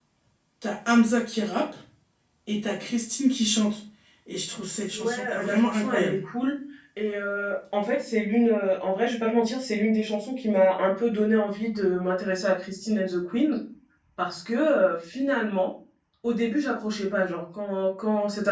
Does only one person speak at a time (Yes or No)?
No